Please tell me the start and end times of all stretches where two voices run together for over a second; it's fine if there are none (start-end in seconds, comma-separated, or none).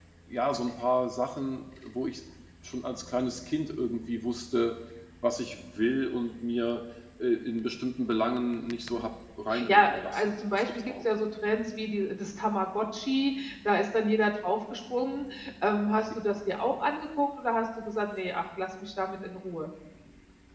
9.7-10.9